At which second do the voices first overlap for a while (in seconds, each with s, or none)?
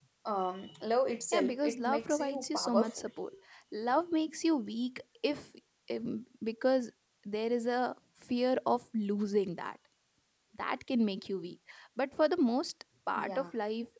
1.3 s